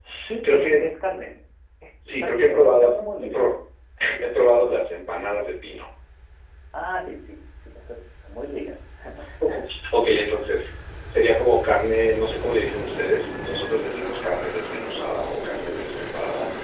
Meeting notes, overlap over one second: present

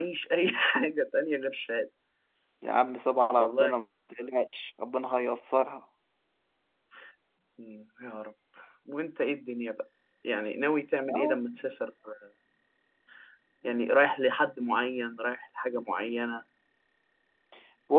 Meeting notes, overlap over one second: none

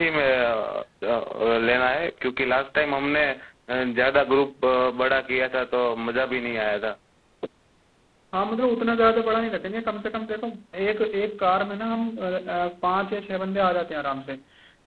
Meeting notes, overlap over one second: none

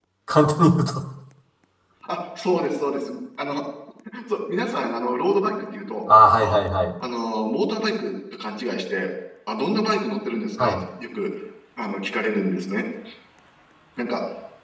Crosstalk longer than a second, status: none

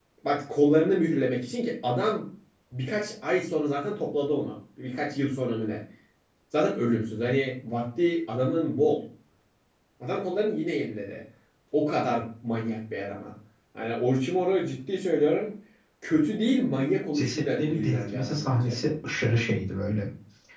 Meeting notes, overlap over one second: present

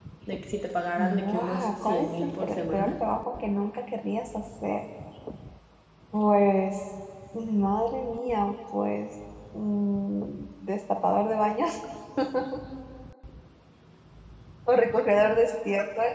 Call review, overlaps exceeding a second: present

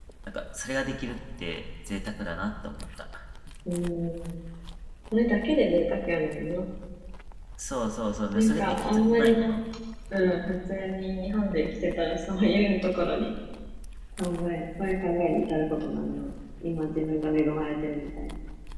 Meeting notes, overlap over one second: present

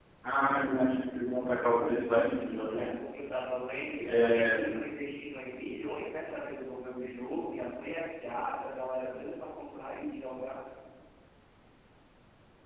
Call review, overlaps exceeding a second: none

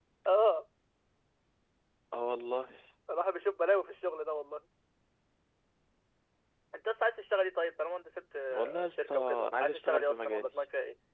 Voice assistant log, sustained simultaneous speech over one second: present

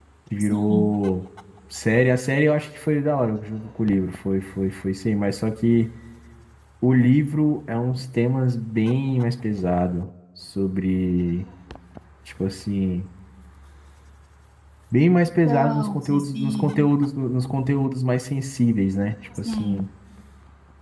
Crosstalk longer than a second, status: present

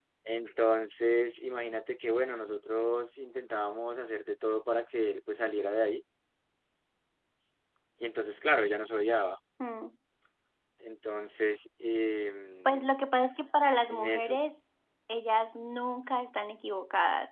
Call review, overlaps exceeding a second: none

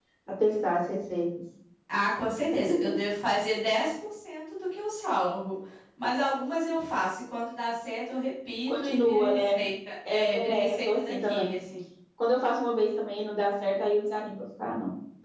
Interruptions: present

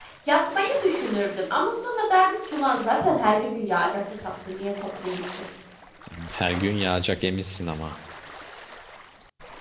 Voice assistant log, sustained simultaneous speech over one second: none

